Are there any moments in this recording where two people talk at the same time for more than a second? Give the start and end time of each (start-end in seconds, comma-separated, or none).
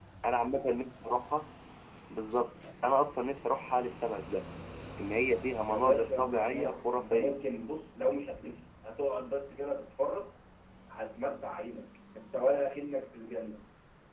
5.6-7.4